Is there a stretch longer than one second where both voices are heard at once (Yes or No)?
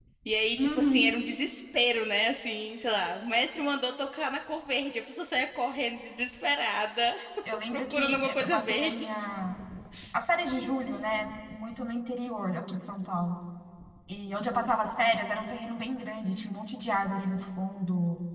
Yes